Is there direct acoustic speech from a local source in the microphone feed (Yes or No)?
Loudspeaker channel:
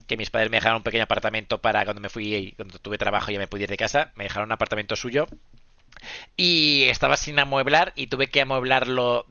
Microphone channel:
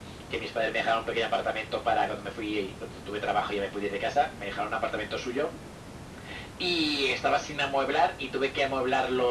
No